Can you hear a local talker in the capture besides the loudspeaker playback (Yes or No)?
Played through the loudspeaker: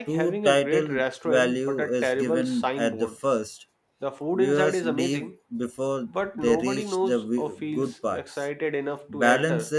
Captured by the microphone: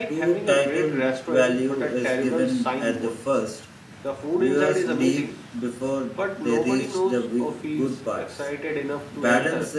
No